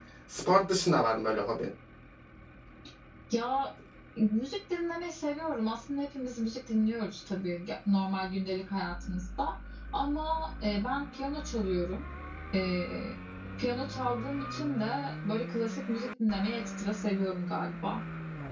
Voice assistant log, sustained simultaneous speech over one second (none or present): none